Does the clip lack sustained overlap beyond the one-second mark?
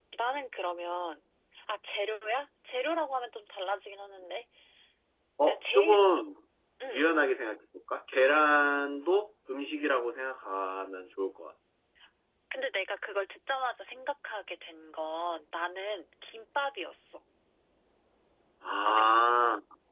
Yes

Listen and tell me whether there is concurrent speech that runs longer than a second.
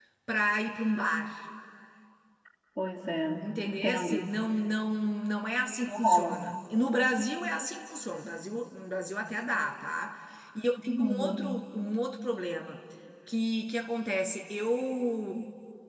No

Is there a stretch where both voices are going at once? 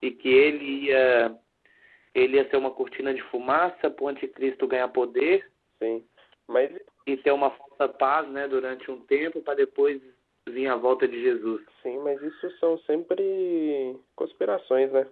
No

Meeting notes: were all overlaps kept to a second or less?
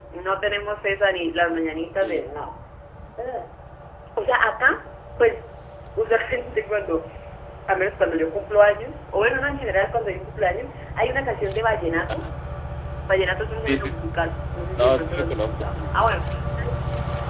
No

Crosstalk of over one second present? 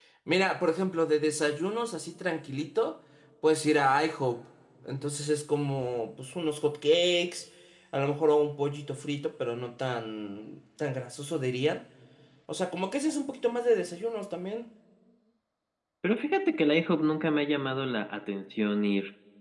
No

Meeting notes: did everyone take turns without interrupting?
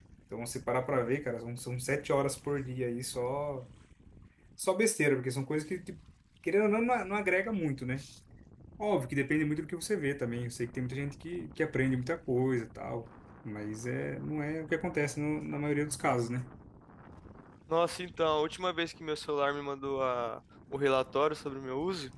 Yes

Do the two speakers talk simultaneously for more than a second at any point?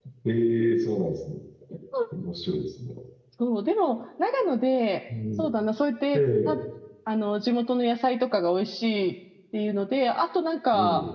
No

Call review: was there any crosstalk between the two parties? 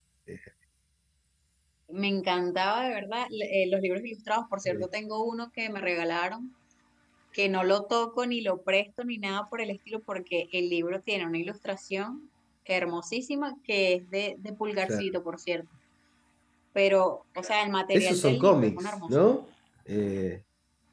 Yes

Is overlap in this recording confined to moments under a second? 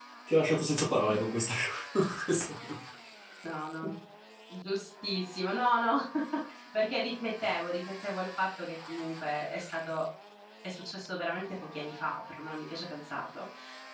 Yes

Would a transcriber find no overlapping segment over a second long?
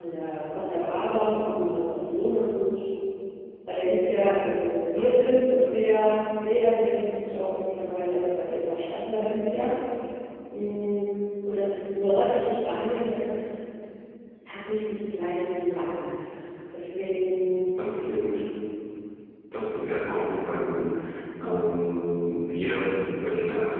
Yes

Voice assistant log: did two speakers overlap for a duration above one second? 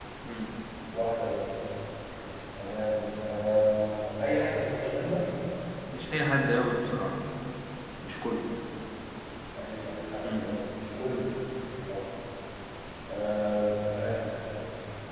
No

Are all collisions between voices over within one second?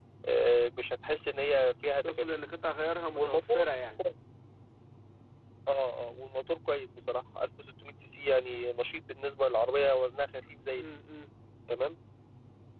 Yes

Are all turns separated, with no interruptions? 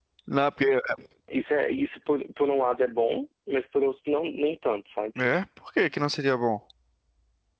Yes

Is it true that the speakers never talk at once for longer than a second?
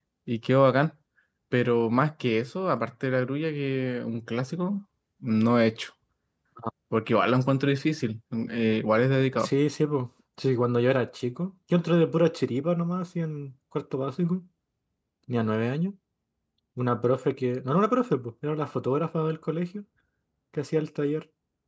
Yes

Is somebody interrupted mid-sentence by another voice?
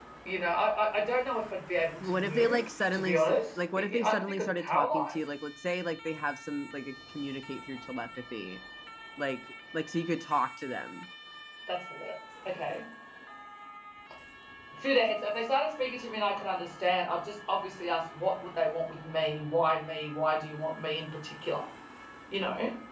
Yes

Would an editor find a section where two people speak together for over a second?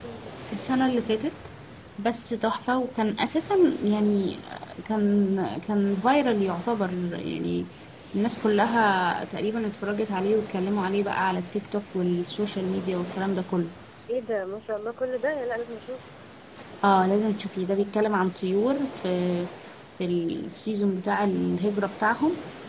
No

